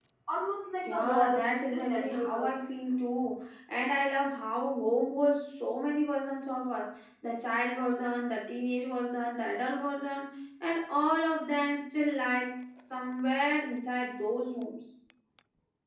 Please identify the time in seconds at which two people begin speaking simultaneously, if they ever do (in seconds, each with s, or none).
0.9 s